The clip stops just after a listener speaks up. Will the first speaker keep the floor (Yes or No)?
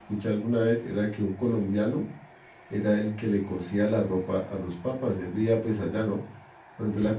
Yes